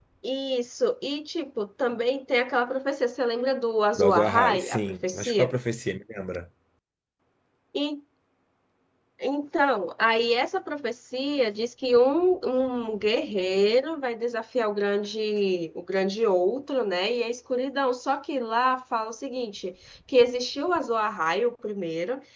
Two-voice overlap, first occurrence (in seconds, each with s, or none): 4.0 s